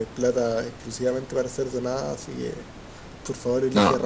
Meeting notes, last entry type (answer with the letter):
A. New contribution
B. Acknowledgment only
A